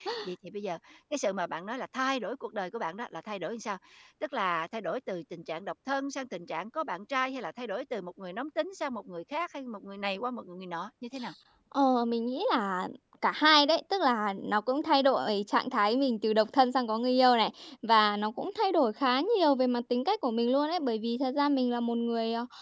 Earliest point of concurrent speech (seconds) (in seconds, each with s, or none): none